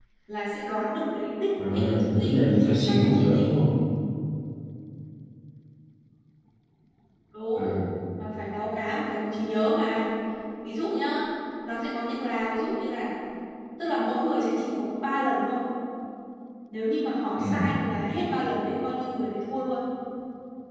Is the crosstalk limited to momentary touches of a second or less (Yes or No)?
No